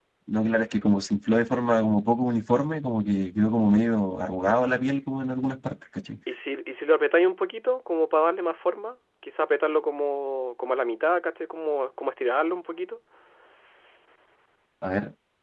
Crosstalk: none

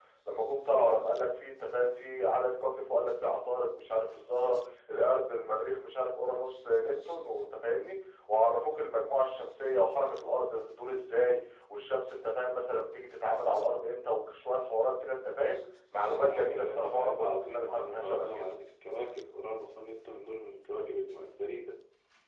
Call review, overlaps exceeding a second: present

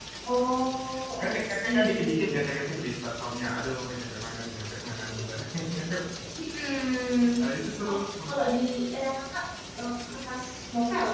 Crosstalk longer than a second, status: present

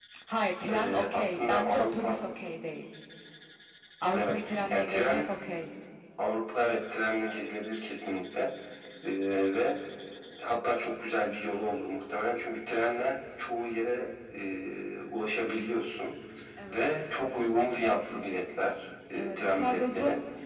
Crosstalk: present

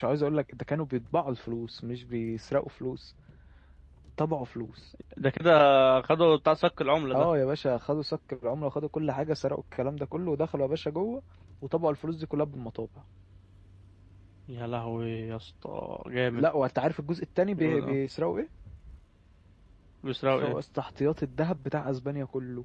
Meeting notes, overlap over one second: none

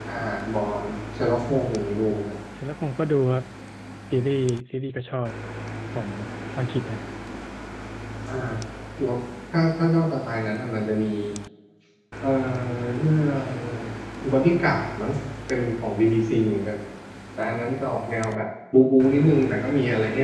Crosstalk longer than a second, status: none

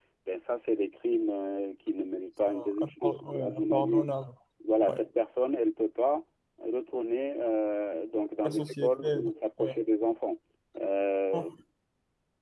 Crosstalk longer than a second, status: present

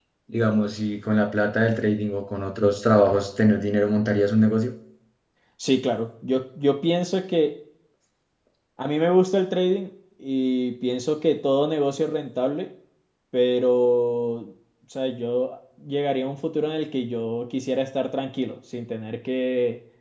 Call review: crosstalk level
none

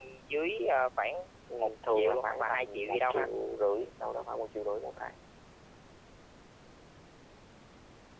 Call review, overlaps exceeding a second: present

